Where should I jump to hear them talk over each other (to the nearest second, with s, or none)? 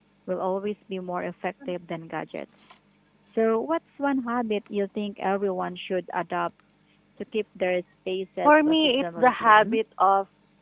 8 s